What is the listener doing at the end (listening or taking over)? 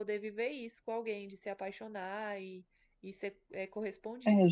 taking over